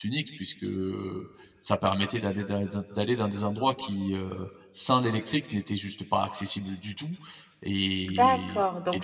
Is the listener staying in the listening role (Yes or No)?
No